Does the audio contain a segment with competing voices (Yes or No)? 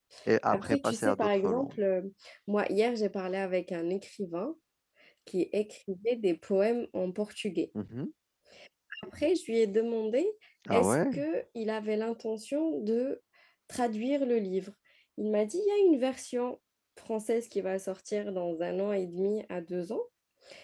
Yes